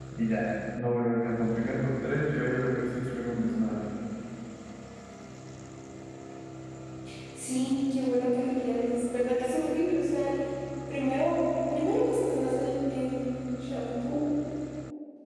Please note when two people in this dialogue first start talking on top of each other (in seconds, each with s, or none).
none